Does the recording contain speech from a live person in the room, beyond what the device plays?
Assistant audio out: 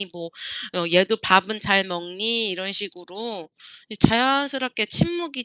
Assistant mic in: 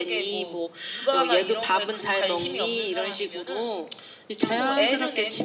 Yes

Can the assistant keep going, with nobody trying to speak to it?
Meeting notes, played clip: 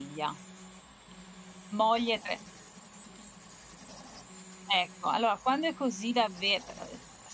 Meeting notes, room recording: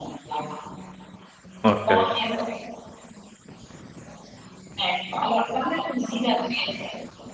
No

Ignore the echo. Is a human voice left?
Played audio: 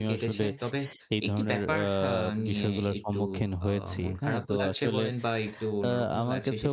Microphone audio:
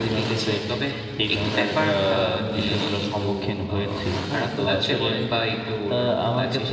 No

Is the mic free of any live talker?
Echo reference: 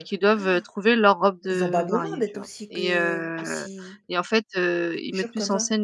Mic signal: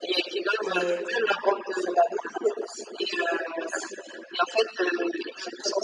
No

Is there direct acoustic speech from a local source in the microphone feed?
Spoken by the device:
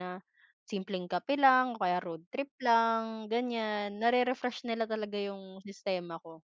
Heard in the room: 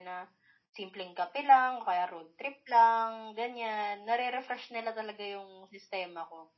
No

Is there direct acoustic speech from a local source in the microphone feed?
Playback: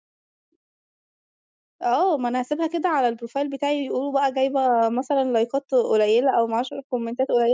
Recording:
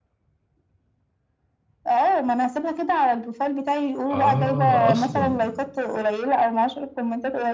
Yes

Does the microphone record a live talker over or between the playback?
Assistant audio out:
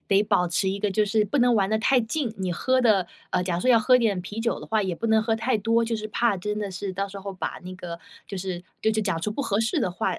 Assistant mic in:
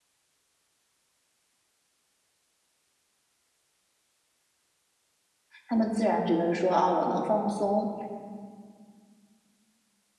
Yes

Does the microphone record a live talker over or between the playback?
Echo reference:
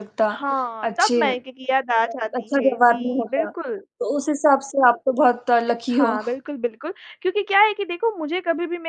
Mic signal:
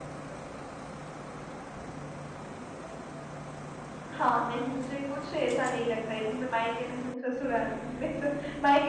Yes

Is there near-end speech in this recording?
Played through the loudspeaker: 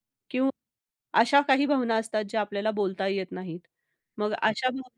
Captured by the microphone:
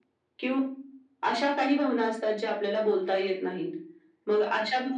No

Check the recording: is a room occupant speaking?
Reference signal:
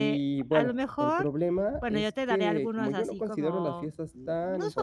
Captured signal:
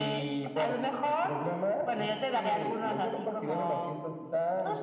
No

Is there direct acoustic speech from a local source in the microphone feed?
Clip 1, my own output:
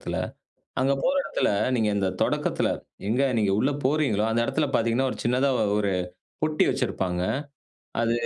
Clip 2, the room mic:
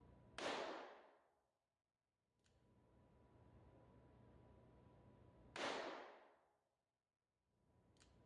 No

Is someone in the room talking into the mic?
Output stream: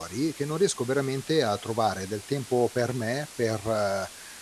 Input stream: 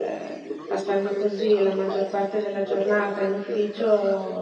Yes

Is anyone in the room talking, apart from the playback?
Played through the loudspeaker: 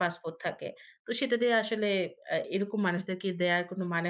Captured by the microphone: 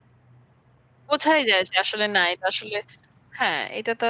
Yes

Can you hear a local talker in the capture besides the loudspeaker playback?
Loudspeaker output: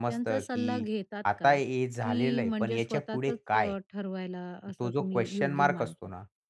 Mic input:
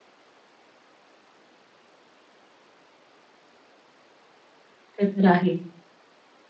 Yes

